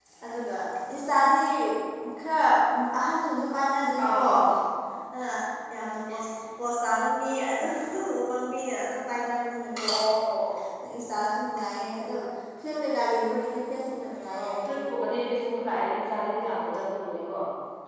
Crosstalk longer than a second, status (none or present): none